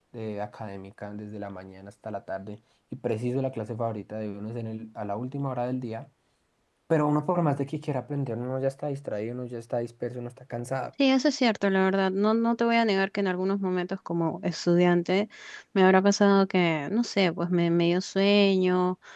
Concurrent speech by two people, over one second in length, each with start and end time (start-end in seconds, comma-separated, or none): none